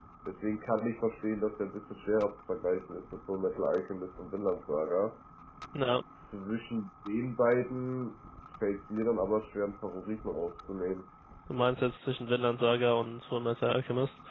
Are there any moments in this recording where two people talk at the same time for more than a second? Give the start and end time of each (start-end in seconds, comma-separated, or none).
none